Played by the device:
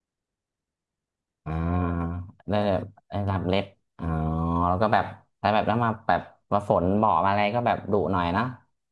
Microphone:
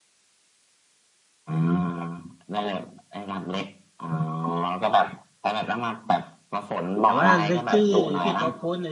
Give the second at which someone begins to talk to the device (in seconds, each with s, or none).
7.0 s